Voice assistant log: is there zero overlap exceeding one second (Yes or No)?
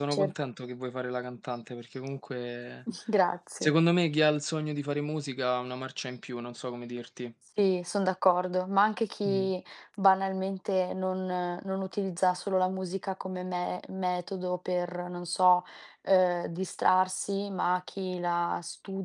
Yes